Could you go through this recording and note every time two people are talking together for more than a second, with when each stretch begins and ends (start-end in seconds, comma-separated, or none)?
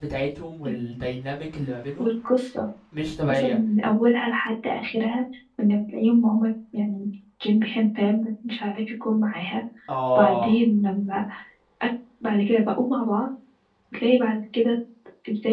none